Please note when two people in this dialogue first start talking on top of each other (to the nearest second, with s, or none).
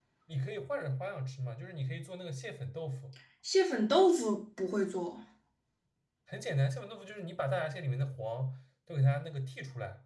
none